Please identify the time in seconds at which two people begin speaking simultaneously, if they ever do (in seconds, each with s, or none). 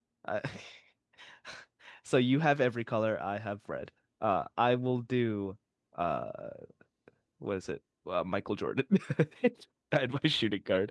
none